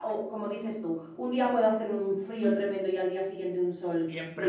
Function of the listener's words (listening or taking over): taking over